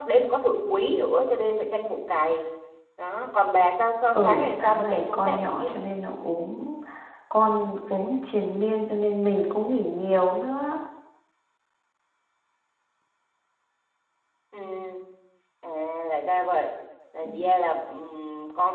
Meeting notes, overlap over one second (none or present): present